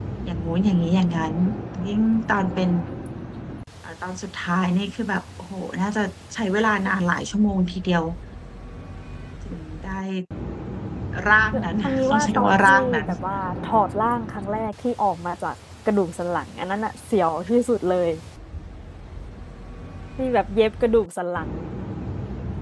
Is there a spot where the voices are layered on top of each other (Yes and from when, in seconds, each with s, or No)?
Yes, from 11.5 s